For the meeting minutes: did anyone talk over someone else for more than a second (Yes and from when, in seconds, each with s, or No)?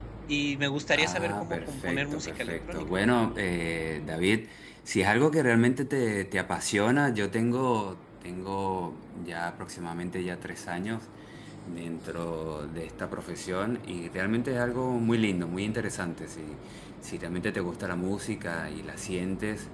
Yes, from 1.0 s